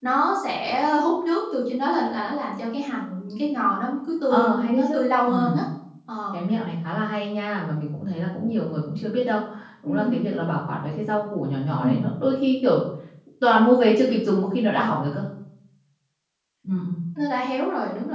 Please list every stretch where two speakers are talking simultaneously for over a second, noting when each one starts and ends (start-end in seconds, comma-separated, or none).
4.3-5.6